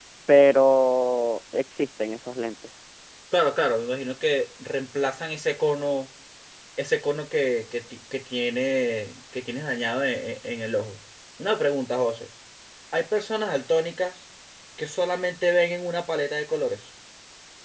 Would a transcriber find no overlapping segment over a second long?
Yes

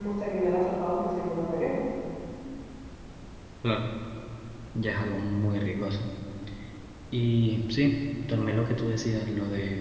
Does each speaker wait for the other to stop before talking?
Yes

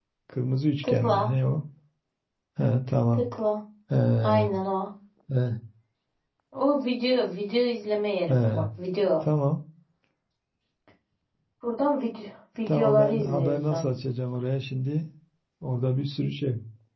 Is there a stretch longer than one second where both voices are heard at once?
Yes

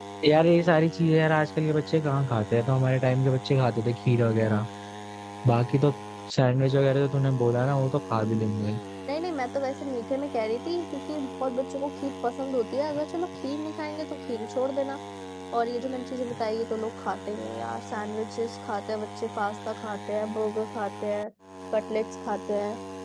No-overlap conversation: Yes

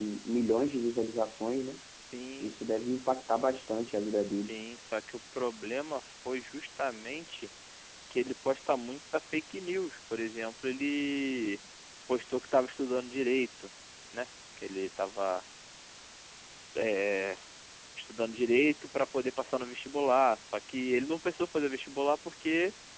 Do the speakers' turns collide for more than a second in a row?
No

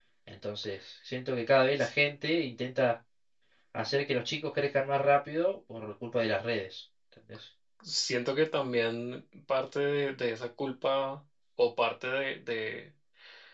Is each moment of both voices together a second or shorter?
Yes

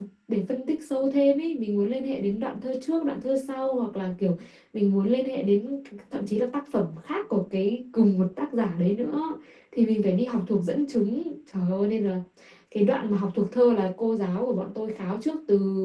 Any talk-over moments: No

